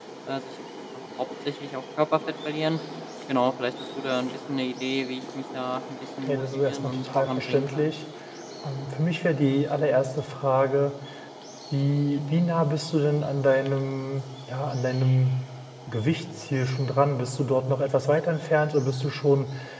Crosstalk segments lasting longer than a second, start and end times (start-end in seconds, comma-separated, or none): 6.3-7.9